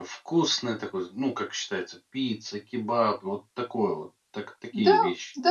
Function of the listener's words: taking over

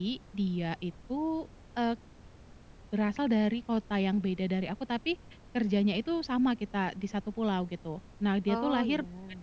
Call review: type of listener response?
listening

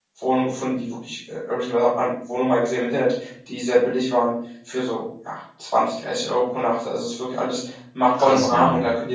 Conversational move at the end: listening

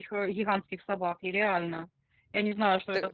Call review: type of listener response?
listening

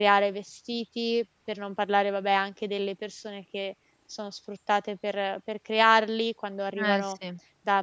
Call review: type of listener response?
listening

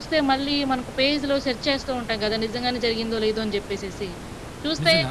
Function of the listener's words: listening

